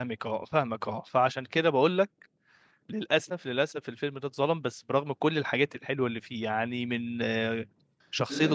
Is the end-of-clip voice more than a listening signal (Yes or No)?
No